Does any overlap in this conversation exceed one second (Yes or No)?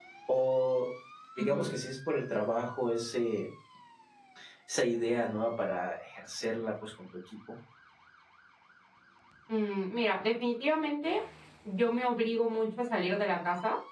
No